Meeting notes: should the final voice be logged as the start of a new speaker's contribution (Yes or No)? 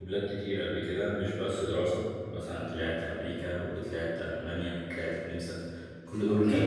Yes